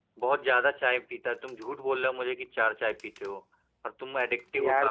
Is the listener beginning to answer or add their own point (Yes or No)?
Yes